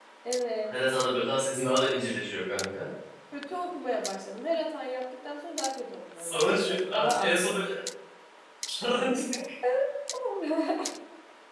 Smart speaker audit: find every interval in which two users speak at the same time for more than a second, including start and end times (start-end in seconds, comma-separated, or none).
6.2-7.4